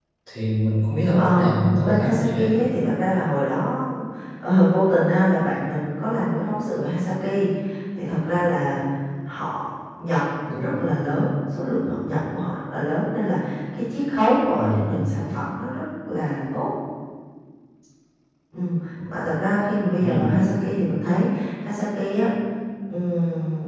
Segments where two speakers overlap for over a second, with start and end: 1.2-2.6

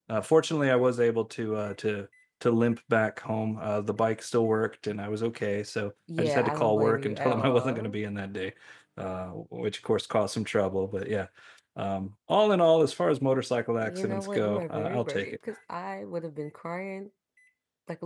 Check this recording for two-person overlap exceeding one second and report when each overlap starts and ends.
6.2-8.0, 13.8-15.3

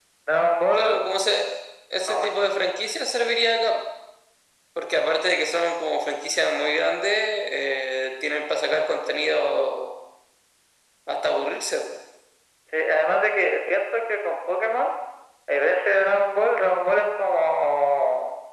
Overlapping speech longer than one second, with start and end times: none

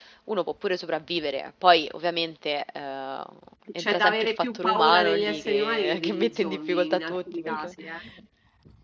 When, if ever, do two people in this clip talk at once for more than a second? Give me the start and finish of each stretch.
3.8-7.7

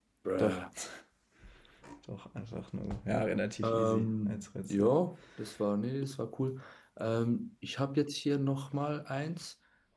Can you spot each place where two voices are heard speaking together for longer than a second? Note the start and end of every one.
3.6-4.9

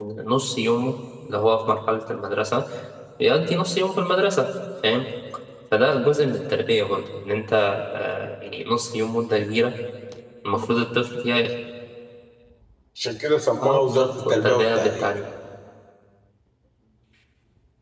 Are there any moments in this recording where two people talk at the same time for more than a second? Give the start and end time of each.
13.6-15.1

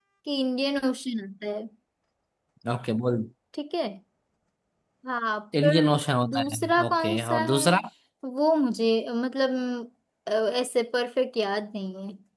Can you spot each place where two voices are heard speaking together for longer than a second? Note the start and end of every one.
6.3-7.7

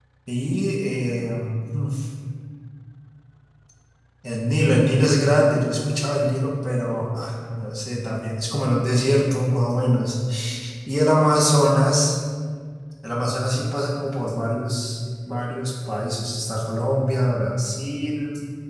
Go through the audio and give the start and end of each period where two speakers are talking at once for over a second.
none

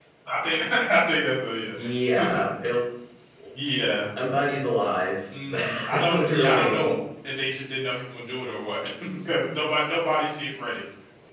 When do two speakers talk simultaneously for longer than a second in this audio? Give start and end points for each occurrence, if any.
5.5-6.9

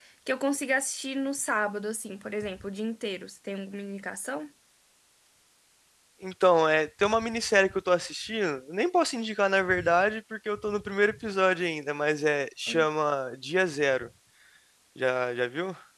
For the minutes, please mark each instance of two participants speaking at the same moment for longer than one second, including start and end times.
none

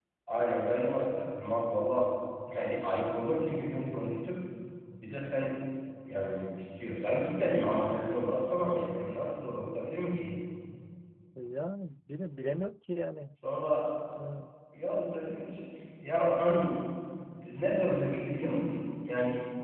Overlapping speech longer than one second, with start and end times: none

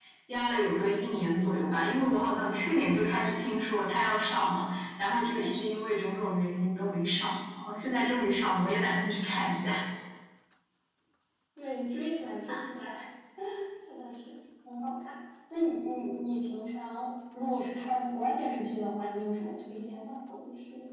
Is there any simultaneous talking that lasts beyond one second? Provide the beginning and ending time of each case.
none

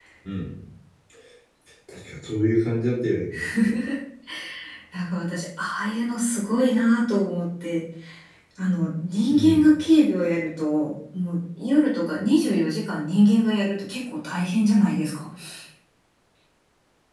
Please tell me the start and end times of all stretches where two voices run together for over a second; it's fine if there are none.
none

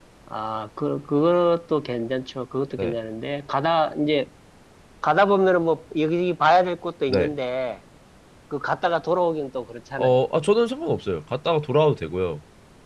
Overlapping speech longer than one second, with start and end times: none

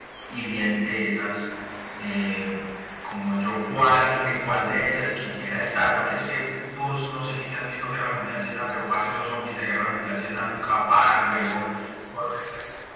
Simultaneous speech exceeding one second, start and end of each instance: none

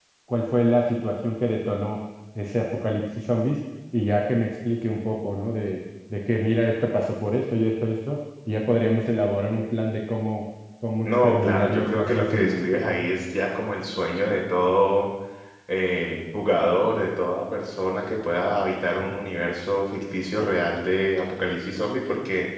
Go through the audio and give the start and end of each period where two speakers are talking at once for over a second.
11.0-12.8

